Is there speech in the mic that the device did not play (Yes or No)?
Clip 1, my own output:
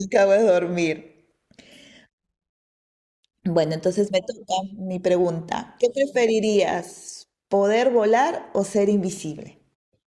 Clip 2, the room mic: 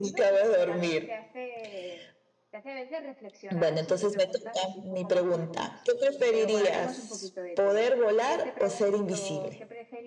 Yes